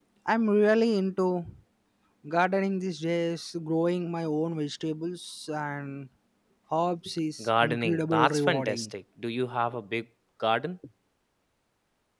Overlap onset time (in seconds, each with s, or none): 7.4 s